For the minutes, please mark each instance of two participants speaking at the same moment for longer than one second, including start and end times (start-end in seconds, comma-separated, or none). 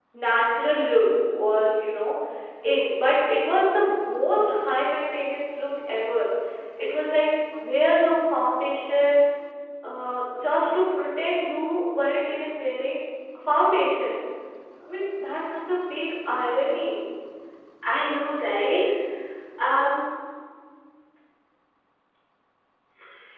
none